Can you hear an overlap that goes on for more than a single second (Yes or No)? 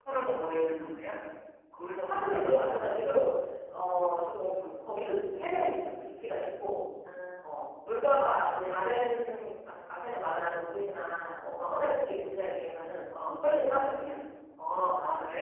No